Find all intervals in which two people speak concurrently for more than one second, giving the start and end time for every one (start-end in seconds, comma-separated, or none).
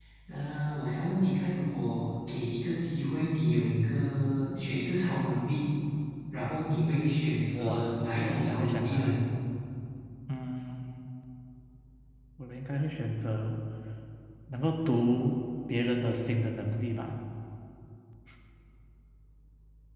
7.5-9.1